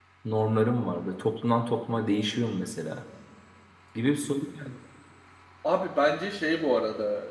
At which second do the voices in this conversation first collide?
none

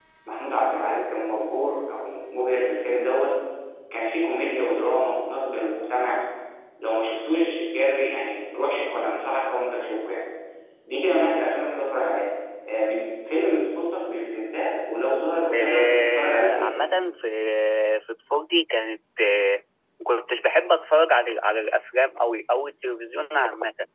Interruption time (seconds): 15.5 s

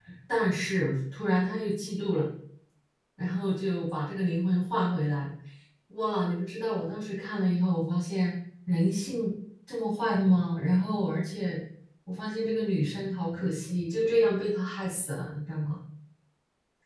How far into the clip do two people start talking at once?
none

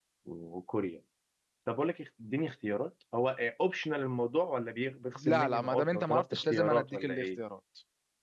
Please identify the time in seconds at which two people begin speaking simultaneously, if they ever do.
5.2 s

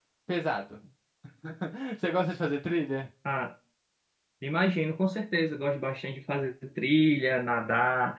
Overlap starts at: none

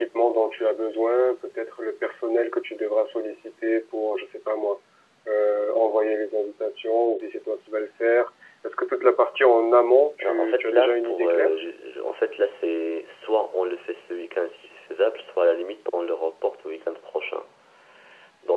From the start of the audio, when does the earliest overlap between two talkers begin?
10.2 s

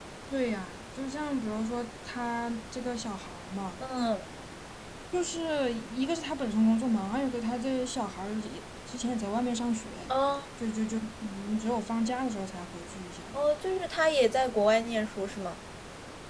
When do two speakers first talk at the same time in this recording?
none

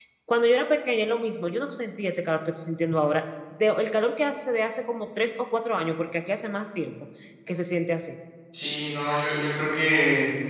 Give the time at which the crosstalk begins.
none

